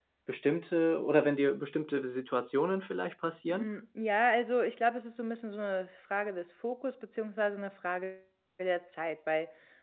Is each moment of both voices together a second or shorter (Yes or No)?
Yes